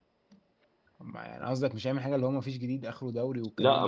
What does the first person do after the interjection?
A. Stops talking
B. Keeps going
A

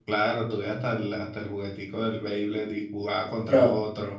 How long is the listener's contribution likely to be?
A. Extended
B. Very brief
A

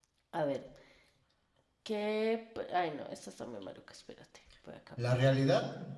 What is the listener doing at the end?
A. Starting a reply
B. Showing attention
A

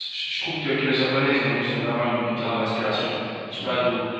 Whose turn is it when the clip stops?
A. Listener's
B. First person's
B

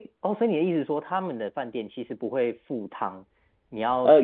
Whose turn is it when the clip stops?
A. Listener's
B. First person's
A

